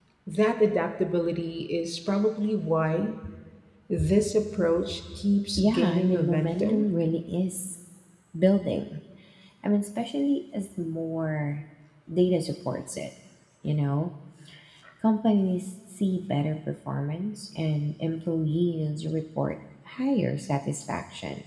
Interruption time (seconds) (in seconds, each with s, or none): 5.6 s